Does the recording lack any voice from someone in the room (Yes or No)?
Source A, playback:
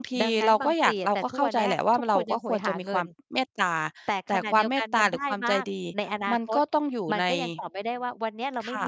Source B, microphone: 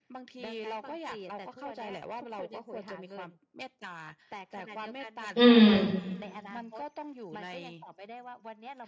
No